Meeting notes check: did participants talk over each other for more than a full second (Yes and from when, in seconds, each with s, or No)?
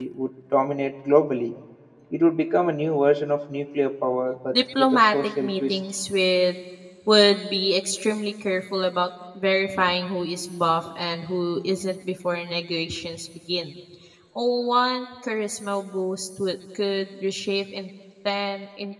Yes, from 4.5 s